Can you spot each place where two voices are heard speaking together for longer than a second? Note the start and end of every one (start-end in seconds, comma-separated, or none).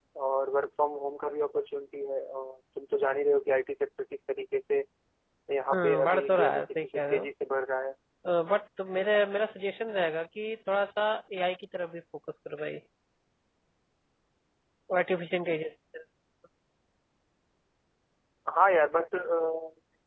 5.7-7.2